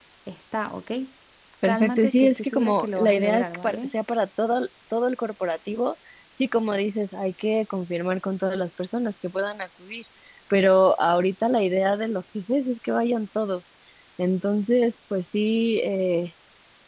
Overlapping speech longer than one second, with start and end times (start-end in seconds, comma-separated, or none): 1.6-3.9